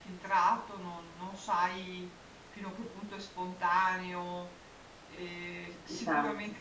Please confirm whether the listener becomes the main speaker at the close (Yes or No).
No